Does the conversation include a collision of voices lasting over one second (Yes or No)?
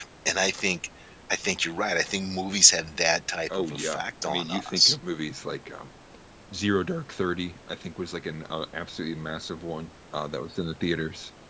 Yes